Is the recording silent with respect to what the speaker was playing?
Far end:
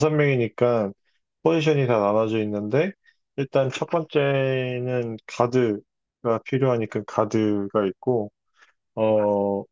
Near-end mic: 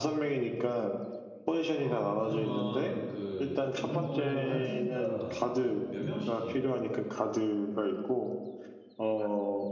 No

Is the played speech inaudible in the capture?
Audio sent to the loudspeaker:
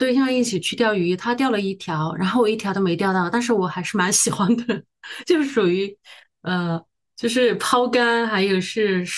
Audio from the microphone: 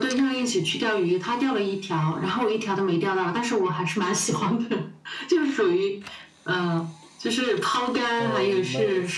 No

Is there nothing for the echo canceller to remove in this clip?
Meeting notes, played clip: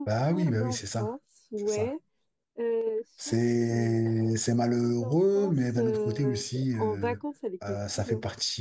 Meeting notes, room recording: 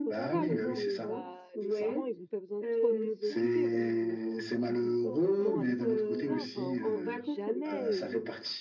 No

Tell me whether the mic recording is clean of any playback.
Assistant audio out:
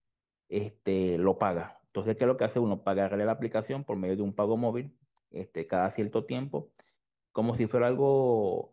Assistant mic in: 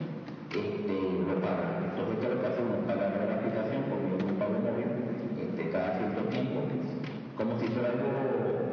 No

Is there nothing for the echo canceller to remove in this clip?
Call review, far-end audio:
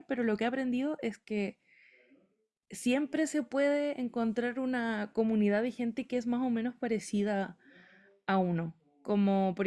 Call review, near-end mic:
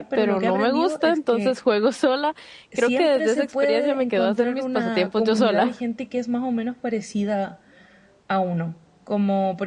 No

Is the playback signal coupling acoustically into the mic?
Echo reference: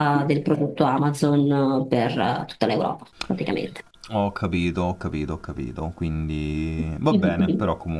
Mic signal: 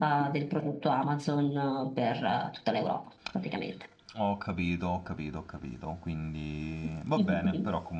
Yes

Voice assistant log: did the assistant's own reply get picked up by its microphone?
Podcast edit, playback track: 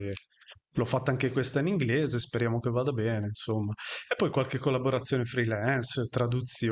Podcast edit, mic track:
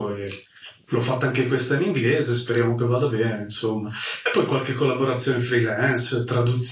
Yes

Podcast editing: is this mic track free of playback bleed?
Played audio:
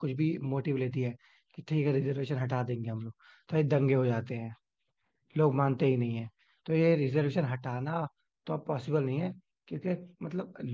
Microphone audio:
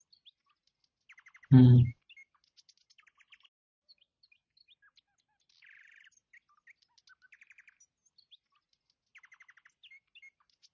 Yes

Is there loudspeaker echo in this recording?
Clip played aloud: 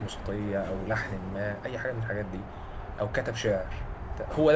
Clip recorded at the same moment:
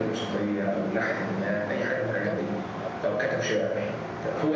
Yes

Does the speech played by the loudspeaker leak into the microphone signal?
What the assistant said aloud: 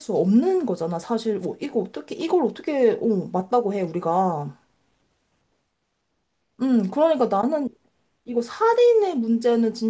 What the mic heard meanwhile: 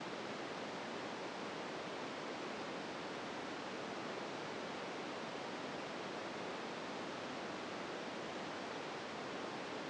No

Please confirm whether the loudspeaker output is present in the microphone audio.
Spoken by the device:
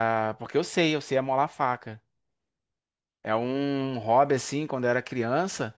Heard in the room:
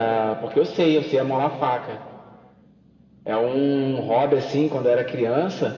Yes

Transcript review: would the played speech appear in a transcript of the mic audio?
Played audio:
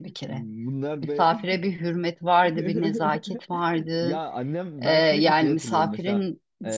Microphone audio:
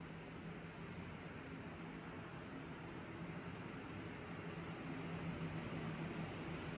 No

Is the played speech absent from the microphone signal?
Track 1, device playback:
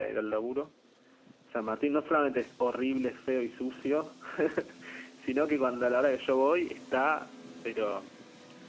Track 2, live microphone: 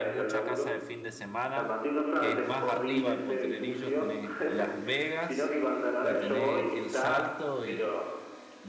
No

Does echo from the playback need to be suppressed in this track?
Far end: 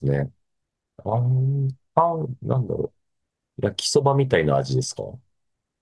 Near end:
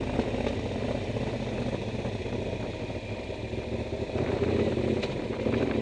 No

